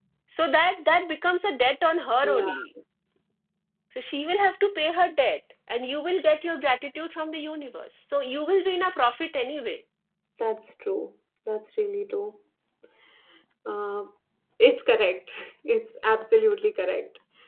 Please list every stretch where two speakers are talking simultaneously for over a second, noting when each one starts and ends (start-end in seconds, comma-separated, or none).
none